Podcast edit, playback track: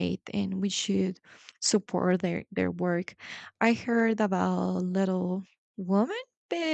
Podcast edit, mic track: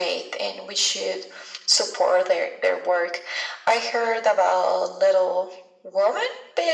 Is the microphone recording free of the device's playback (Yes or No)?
No